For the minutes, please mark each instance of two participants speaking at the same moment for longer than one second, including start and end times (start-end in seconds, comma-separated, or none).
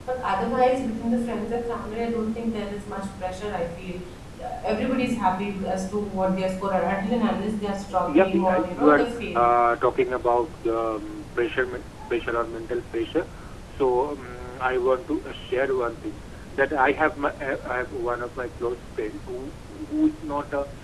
8.1-9.5